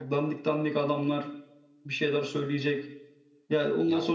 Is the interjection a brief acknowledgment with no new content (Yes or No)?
Yes